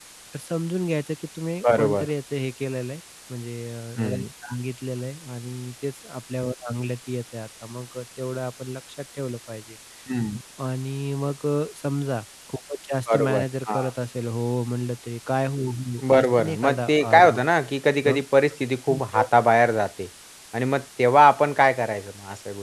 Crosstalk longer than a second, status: present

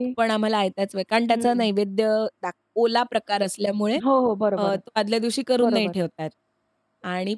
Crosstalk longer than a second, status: none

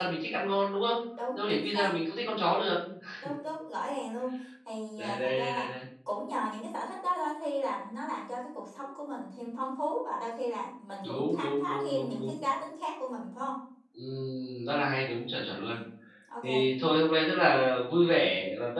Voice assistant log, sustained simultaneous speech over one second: present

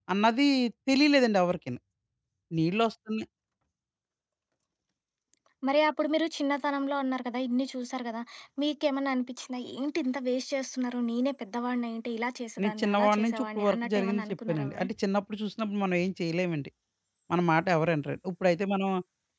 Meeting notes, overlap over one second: present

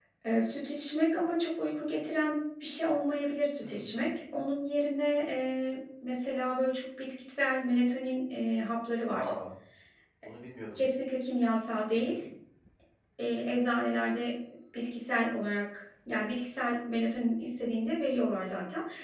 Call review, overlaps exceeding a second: none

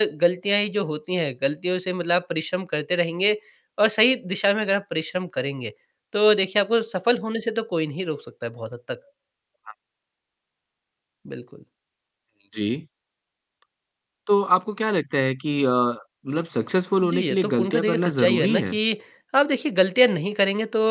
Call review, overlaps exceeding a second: present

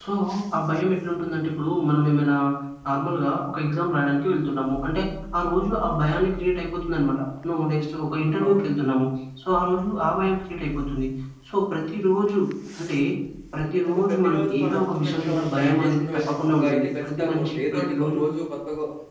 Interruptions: present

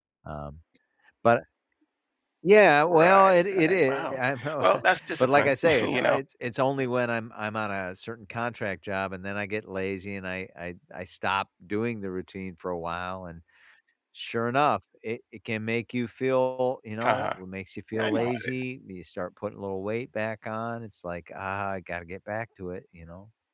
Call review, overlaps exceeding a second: present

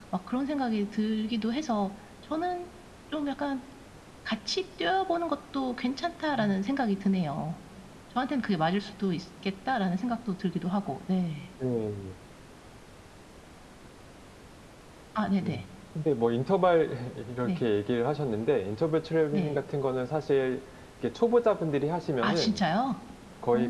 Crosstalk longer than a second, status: none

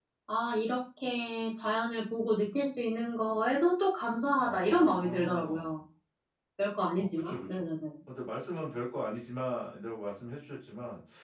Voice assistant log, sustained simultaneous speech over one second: present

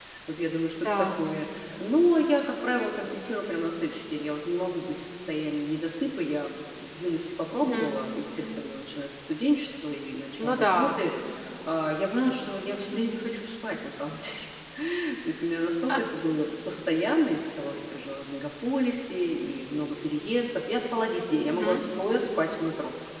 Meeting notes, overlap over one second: none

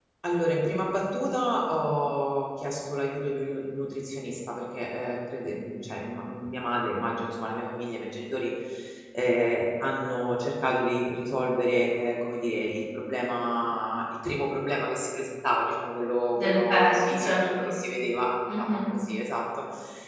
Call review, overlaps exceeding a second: present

